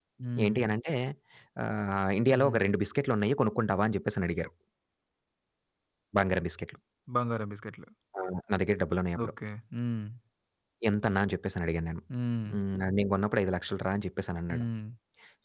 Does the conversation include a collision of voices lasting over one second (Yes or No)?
No